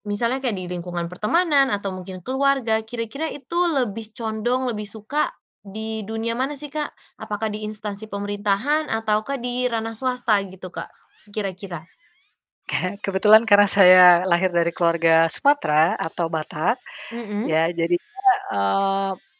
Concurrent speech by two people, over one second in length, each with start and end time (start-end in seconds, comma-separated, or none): none